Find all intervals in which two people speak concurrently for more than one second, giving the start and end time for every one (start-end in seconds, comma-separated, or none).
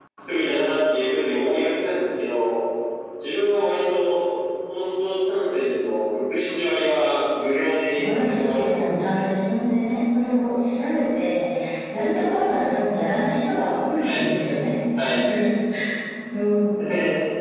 7.9-9.2